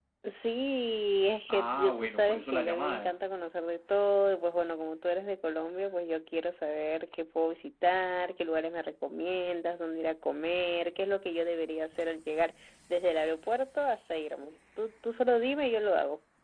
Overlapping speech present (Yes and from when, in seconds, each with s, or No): Yes, from 1.5 s